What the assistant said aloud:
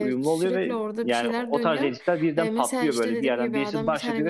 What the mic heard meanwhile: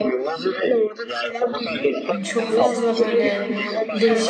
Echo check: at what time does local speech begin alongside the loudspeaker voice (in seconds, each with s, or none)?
2.1 s